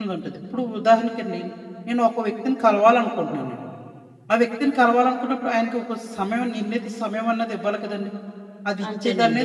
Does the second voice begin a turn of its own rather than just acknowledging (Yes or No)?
Yes